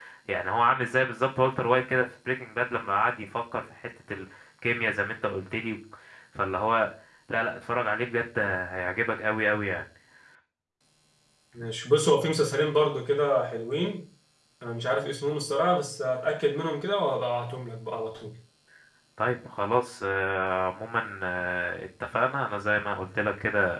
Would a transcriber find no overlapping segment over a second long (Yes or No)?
Yes